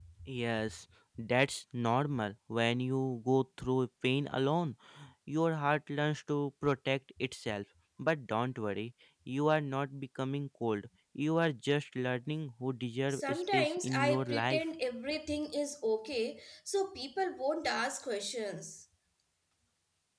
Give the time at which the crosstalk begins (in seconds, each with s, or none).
13.1 s